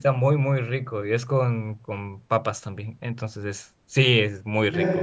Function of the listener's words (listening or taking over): taking over